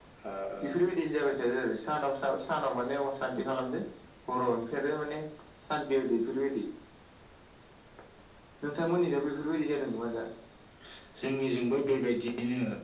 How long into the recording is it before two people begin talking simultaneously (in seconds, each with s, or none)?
none